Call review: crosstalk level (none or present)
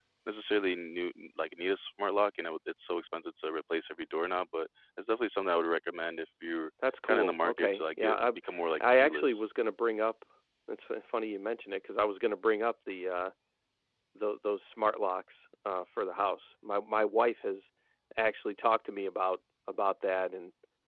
present